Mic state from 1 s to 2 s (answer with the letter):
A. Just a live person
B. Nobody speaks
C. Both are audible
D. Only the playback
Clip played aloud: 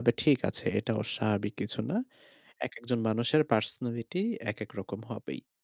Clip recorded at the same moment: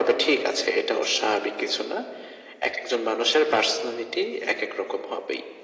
D